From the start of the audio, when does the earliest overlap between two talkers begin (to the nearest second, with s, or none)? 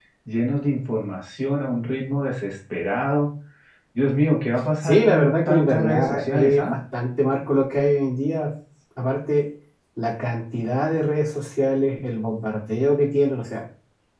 5 s